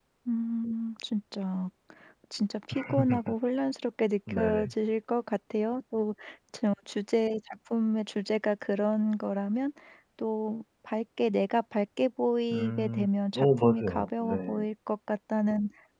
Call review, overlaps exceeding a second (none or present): present